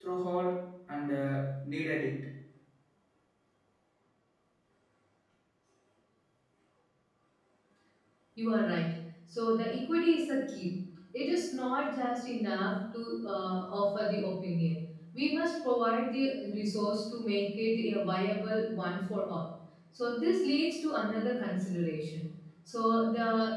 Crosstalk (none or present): none